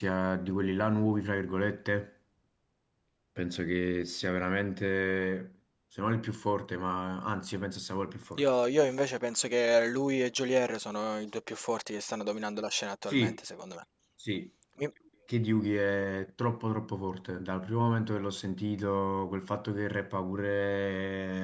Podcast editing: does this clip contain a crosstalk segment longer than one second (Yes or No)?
No